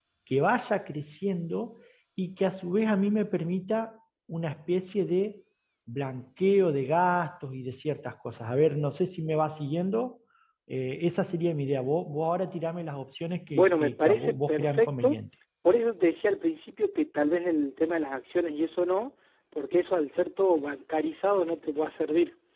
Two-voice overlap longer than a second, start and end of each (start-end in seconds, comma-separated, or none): 13.5-15.2